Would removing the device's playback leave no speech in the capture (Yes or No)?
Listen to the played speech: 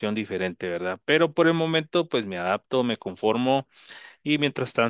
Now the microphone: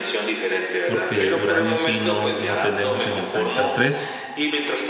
No